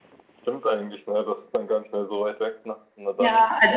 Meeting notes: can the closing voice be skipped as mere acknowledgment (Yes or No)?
No